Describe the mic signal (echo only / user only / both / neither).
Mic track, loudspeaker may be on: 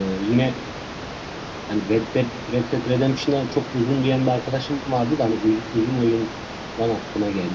user only